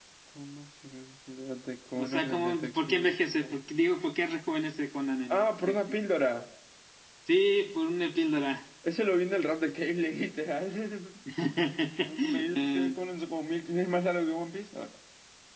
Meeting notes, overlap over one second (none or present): present